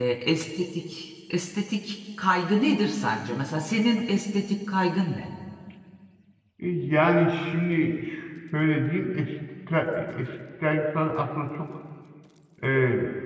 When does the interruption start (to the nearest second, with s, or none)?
none